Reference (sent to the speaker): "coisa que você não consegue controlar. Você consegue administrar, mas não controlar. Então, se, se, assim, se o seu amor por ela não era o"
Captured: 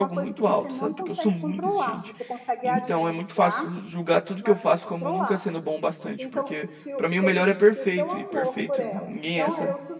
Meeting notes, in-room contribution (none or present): present